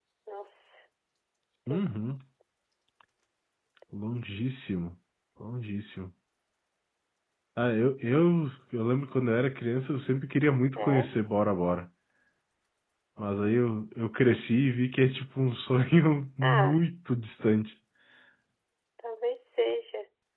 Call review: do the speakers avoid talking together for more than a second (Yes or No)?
Yes